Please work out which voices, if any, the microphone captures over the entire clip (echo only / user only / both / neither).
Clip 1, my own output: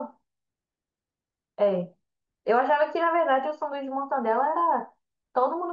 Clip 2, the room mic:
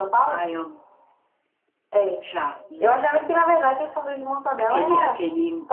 both